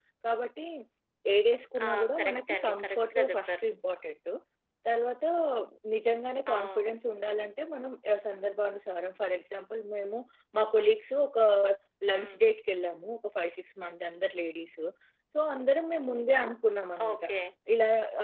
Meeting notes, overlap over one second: present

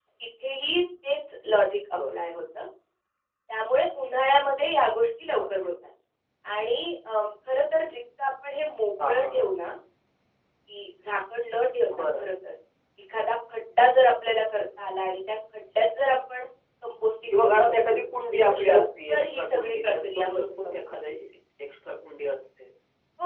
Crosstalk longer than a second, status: present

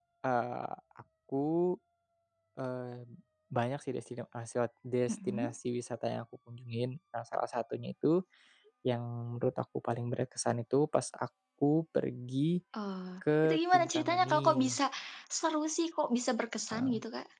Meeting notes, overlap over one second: present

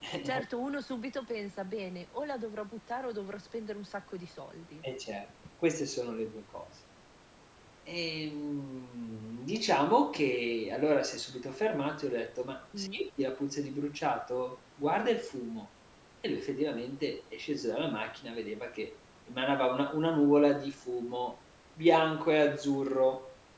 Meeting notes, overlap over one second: none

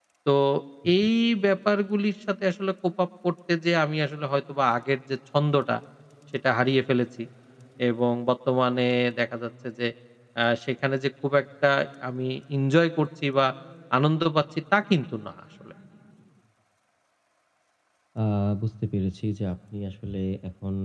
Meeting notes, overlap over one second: none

